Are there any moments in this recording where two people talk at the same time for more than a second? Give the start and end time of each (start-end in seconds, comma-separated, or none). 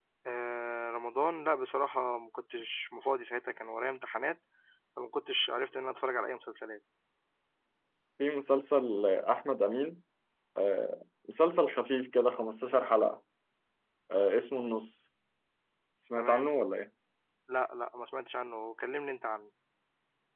none